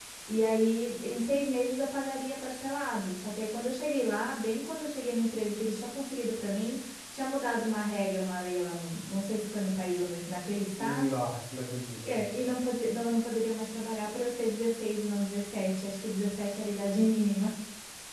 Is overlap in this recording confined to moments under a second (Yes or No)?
Yes